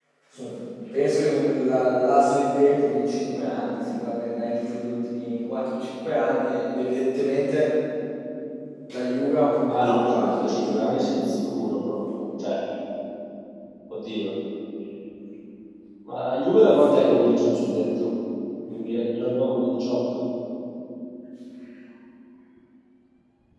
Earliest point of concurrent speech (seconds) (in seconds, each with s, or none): 9.7 s